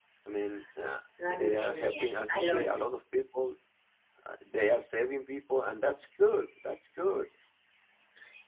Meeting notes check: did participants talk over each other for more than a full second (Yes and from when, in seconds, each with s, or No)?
Yes, from 1.2 s